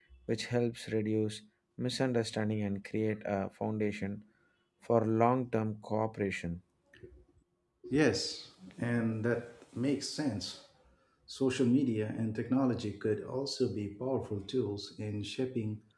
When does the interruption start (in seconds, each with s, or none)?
none